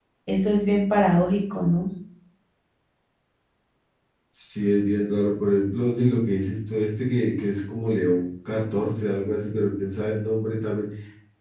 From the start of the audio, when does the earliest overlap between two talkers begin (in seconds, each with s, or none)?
none